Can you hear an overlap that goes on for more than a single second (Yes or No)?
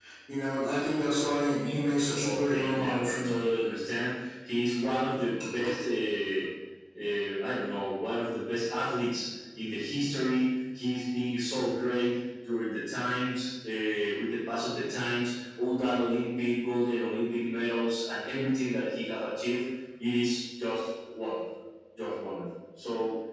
Yes